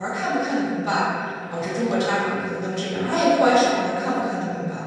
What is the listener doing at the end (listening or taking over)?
listening